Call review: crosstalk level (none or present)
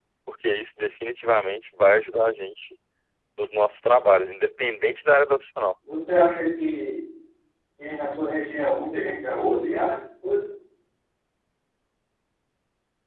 none